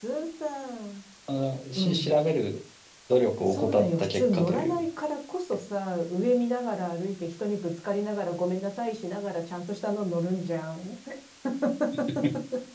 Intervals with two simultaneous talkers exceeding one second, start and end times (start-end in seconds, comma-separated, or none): 3.5-4.8